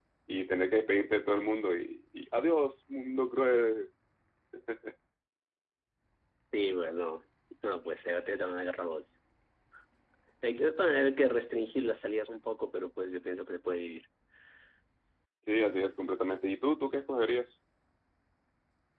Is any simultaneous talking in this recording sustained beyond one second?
No

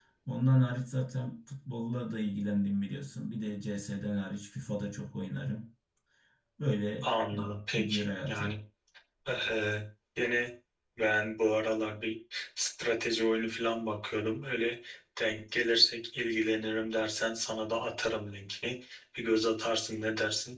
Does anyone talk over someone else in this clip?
Yes, from 7.0 s

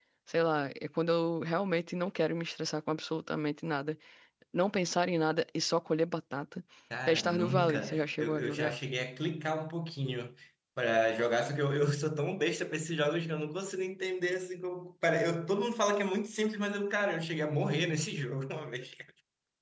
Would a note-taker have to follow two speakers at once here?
Yes, from 7.1 s

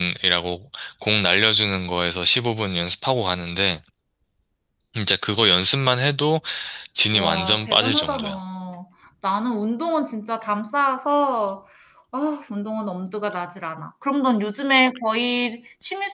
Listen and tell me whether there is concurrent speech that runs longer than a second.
Yes, from 7.1 s

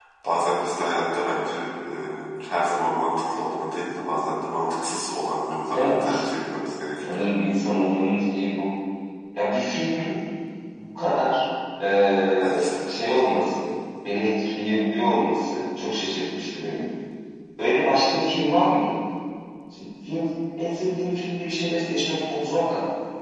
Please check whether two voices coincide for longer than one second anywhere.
No

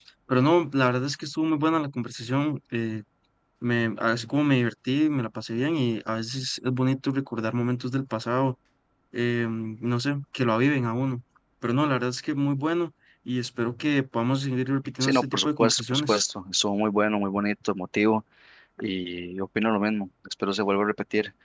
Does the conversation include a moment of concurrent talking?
Yes, from 15.0 s

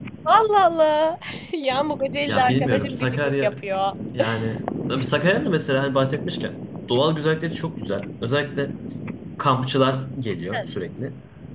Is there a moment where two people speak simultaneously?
Yes, from 2.3 s

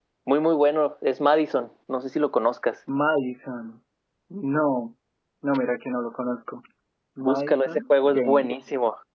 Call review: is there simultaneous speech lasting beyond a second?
Yes, from 7.2 s

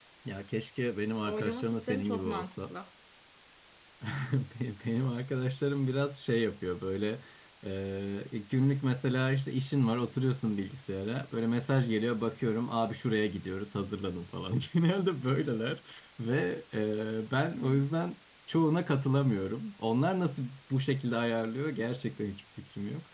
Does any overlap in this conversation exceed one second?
Yes, from 1.2 s

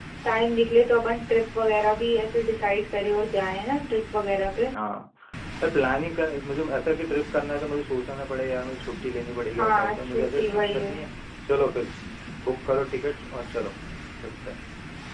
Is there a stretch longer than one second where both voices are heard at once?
Yes, from 9.5 s

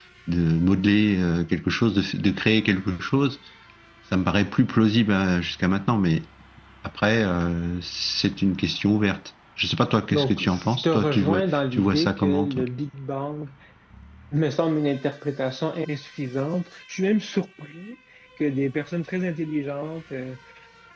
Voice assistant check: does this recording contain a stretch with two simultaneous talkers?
Yes, from 10.1 s

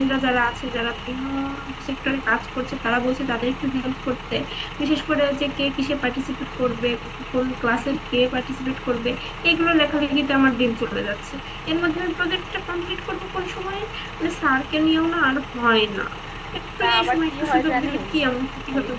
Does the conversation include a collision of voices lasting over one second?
Yes, from 16.8 s

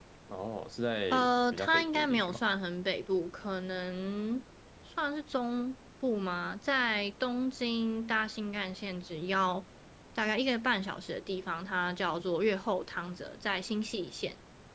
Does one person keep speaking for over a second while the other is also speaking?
Yes, from 1.1 s

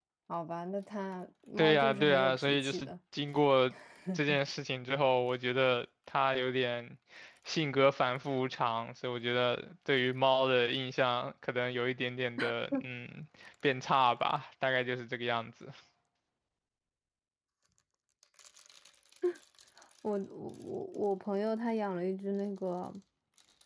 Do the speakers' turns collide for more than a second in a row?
Yes, from 1.6 s

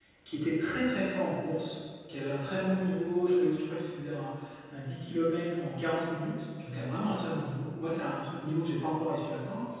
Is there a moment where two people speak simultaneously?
No

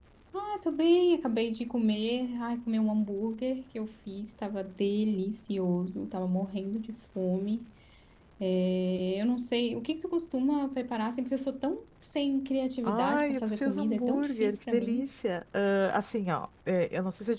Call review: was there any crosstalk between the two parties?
Yes, from 12.8 s

